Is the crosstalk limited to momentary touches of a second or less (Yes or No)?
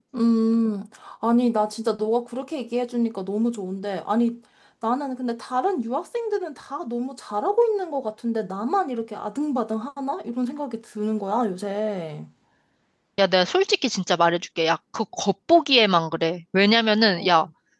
Yes